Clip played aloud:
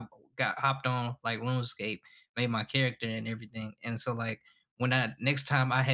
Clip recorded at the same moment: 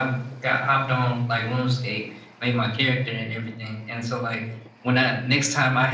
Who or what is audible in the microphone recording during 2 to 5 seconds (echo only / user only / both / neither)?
echo only